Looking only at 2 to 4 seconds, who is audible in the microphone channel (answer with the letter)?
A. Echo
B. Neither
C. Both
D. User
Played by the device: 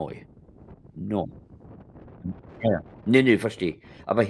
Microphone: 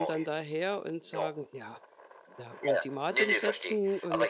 C